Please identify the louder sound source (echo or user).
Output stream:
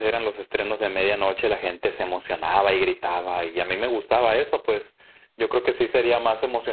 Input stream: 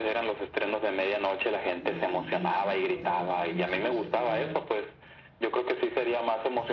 echo